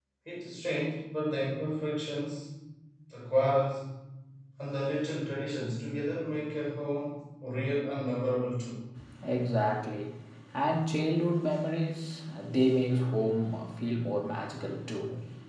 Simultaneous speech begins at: none

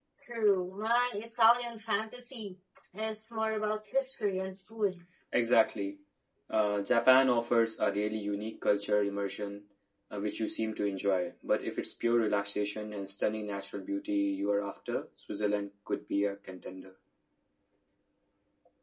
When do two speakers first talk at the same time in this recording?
none

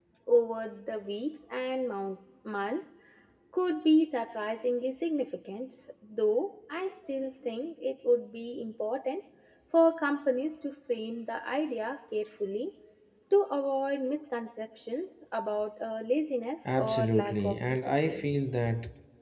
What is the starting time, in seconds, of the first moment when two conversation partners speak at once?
16.6 s

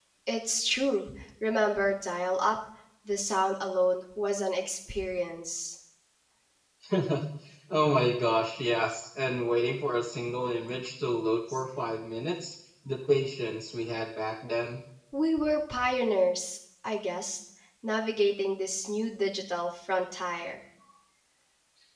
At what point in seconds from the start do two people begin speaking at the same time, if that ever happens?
none

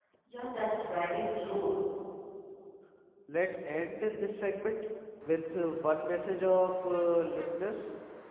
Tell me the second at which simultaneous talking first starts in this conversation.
none

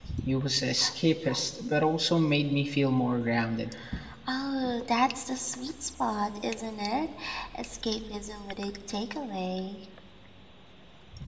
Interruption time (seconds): none

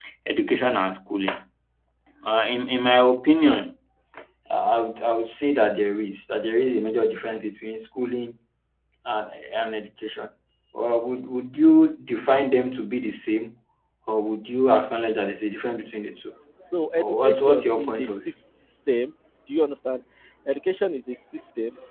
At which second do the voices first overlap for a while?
17.0 s

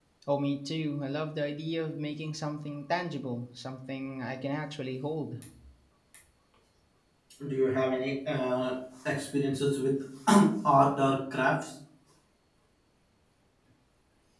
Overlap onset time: none

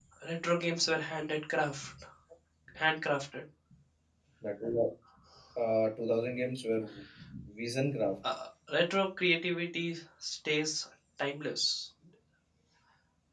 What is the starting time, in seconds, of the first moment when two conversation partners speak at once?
none

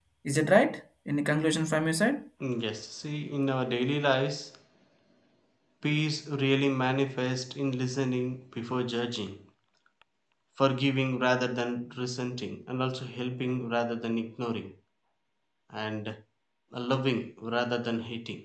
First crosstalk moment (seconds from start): none

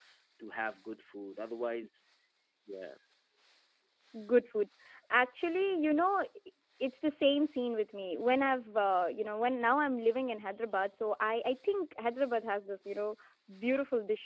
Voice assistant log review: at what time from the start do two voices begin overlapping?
none

